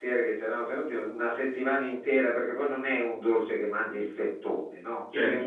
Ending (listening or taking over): listening